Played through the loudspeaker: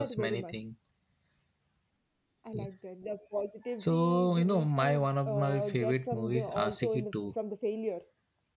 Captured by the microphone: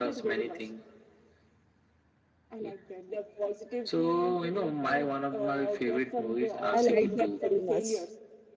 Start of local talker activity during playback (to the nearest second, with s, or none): 7 s